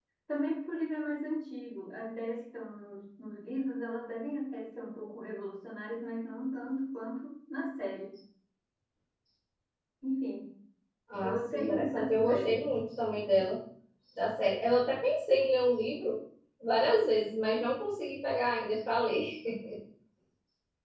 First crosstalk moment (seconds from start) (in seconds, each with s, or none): 11.2 s